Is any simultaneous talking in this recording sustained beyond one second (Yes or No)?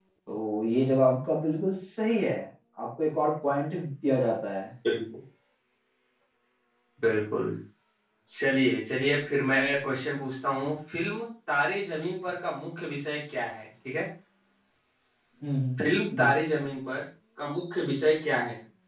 No